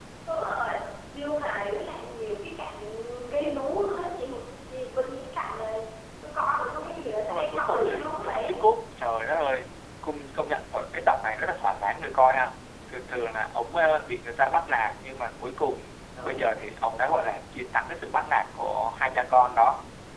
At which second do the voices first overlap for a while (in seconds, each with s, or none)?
6.8 s